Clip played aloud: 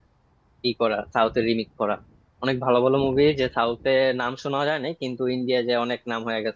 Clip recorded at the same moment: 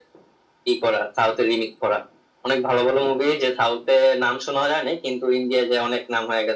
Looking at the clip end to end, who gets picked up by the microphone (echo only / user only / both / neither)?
echo only